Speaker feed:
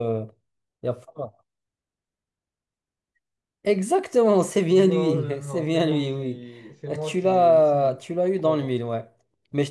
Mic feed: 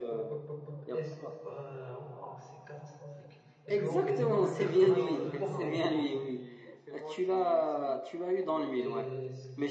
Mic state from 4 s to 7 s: both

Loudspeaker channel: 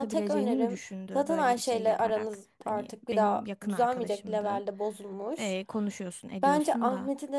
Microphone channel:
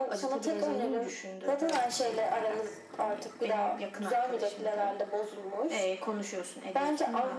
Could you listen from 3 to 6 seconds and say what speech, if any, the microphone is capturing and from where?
echo only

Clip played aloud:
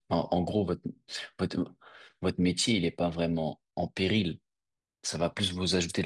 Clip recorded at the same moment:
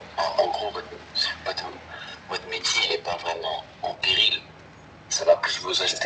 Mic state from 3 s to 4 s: echo only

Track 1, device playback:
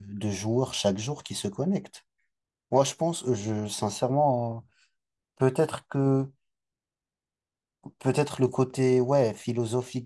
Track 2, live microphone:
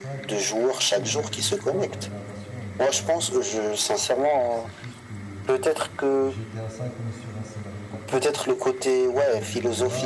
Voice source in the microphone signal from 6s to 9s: both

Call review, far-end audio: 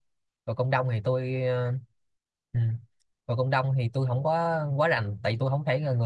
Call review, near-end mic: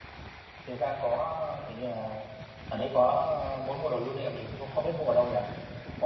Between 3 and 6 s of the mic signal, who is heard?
user only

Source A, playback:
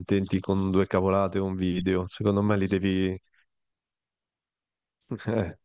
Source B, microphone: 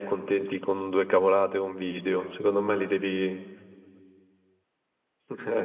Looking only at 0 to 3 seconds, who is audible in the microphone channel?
echo only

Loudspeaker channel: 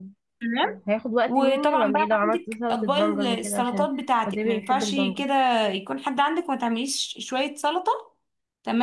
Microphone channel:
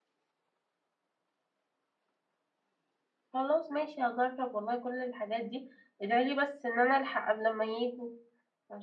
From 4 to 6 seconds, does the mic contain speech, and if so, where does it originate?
user only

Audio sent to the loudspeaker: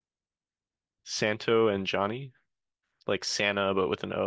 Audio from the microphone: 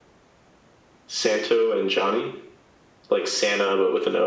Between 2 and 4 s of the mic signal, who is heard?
echo only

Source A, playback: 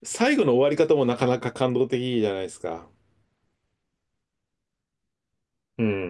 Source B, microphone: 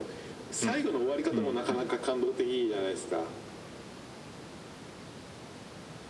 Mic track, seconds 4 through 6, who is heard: neither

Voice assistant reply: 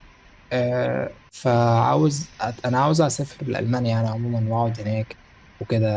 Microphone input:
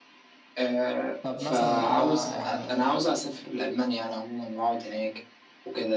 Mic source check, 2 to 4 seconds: both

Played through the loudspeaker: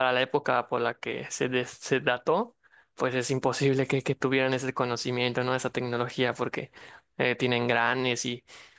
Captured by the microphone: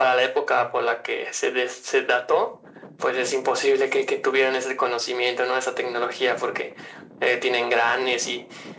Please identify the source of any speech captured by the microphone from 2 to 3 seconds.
echo only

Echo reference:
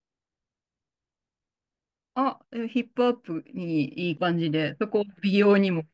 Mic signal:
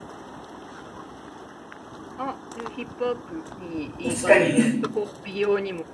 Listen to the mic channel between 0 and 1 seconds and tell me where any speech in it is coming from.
neither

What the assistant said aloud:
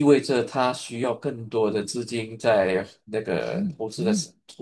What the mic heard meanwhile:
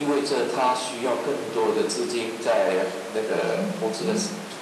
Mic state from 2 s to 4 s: echo only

